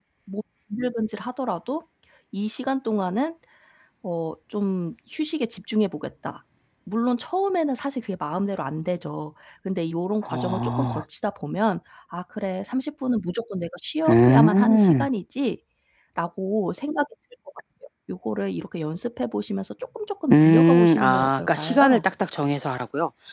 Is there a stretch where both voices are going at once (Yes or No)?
Yes